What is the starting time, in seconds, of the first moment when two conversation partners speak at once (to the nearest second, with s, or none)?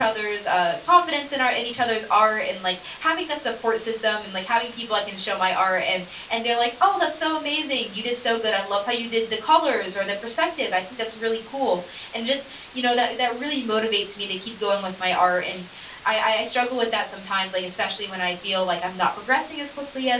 none